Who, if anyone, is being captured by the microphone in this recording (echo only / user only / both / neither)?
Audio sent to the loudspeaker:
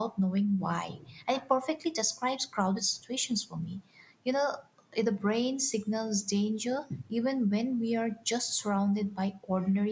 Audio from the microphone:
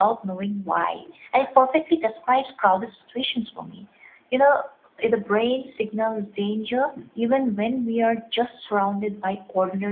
echo only